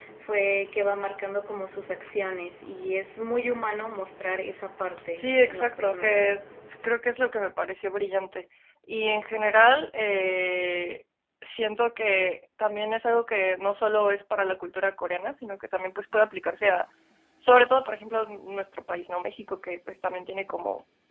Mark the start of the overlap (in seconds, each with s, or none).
5.2 s